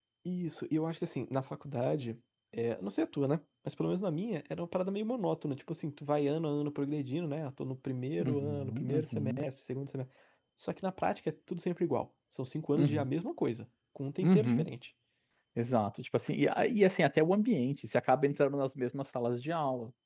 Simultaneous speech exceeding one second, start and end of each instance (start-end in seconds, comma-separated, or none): 8.2-9.4